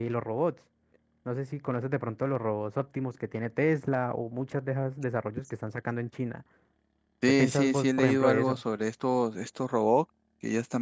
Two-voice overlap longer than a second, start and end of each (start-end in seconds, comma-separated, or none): 7.3-8.6